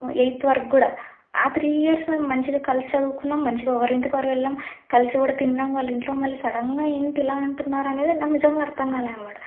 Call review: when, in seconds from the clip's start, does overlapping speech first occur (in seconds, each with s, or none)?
none